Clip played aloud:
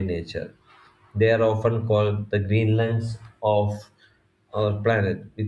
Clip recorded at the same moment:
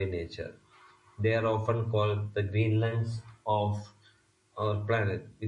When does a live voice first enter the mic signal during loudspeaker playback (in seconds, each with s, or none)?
none